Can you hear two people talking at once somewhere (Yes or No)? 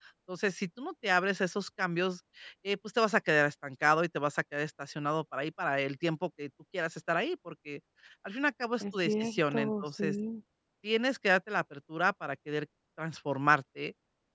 Yes